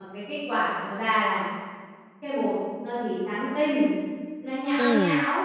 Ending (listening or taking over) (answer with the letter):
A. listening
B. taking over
A